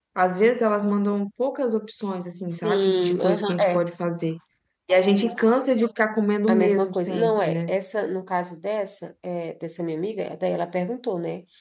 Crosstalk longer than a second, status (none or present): present